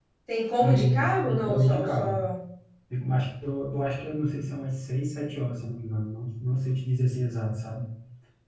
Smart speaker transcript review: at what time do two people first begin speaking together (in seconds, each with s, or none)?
0.6 s